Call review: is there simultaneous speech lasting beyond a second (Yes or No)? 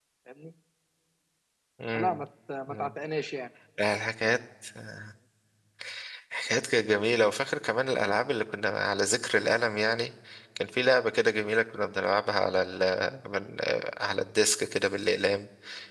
No